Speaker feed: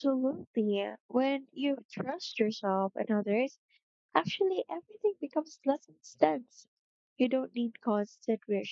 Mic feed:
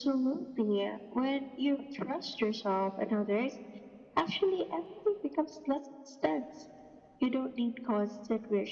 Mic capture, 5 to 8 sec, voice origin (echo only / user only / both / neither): echo only